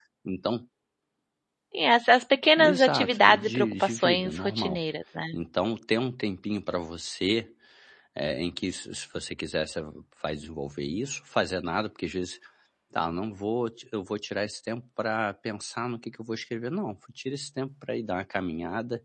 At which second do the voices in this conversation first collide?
2.6 s

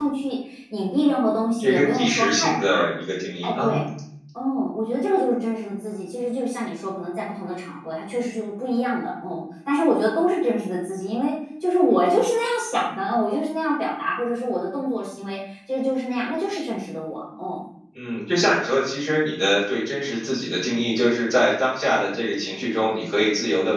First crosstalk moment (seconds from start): 1.6 s

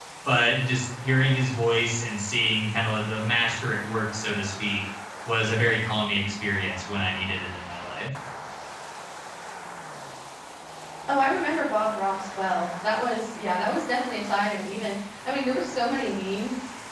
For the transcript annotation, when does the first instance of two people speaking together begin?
none

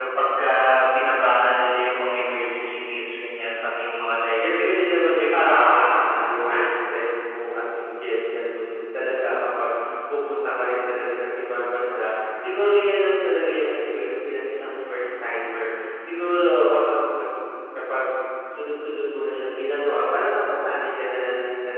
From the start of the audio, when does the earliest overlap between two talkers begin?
4.4 s

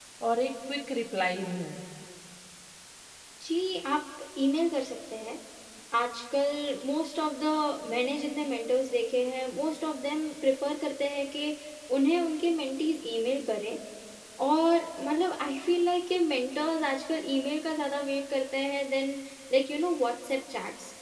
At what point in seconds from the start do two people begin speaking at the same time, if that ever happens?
none

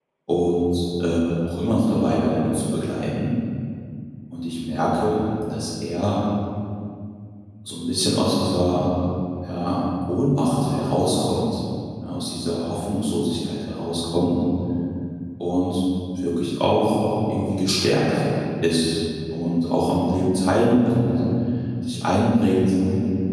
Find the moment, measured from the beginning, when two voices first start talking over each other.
none

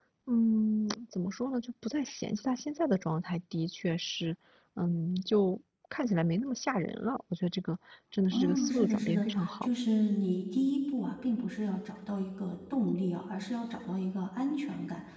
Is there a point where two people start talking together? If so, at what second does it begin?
8.3 s

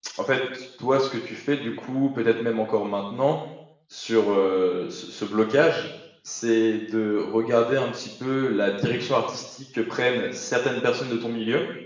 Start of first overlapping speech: none

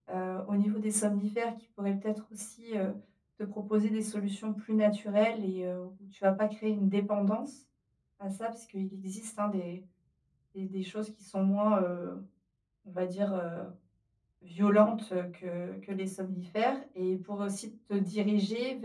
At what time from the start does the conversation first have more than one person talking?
none

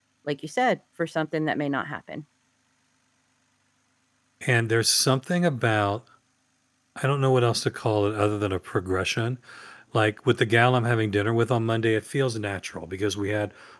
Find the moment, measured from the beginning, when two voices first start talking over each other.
none

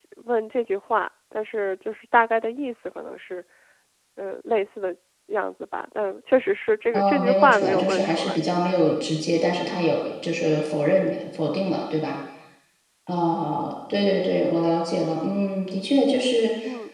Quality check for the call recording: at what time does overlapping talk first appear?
6.9 s

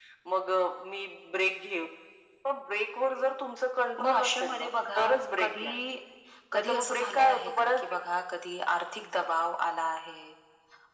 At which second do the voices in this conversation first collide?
4.0 s

